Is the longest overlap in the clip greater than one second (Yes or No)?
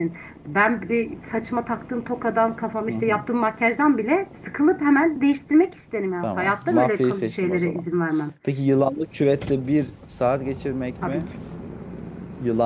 Yes